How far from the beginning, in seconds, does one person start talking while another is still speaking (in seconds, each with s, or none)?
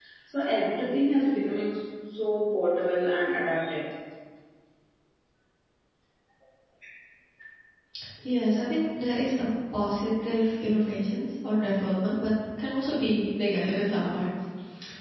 none